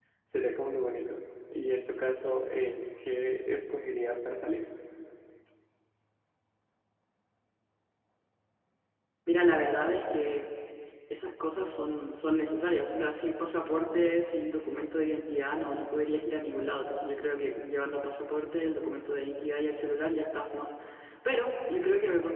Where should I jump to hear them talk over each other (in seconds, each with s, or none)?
none